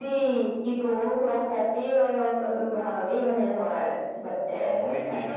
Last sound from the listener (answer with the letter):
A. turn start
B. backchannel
A